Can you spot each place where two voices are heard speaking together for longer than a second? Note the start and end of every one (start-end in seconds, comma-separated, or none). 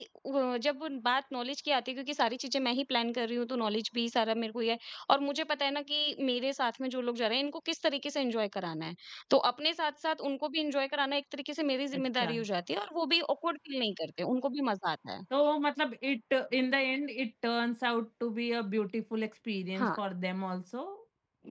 none